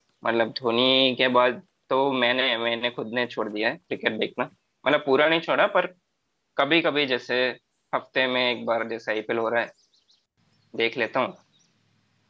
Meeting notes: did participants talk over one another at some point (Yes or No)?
No